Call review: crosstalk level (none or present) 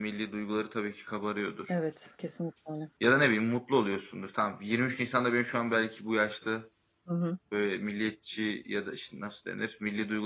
none